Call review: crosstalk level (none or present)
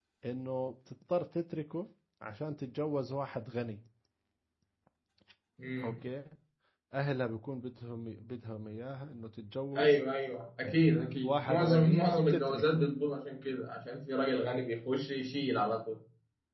present